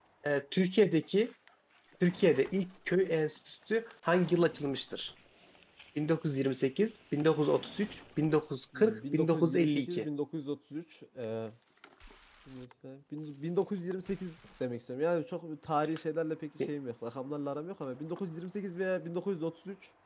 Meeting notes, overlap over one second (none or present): present